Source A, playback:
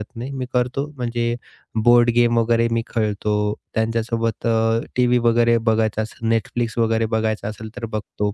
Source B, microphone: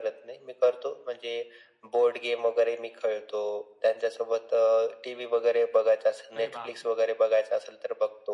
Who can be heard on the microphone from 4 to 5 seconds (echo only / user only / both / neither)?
echo only